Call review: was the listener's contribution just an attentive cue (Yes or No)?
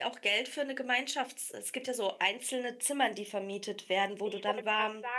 No